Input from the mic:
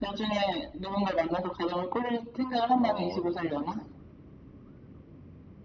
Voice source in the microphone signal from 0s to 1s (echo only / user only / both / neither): echo only